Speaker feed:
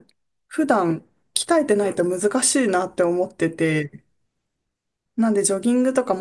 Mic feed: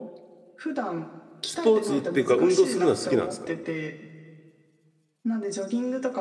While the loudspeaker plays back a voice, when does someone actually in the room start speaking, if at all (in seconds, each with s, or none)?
1.4 s